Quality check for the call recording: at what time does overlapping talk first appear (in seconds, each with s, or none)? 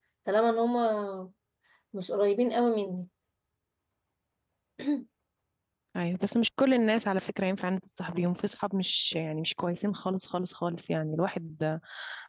none